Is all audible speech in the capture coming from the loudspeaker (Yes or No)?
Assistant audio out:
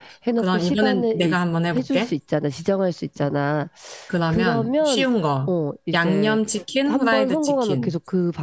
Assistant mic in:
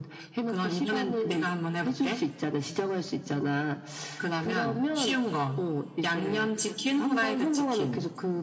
Yes